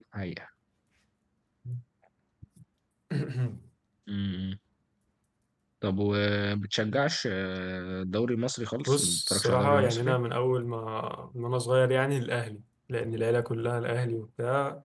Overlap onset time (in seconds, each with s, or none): 8.9 s